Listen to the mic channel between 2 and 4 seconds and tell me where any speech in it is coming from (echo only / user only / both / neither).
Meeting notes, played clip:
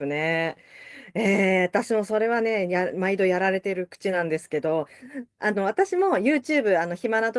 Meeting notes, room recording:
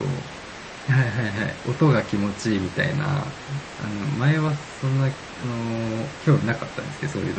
user only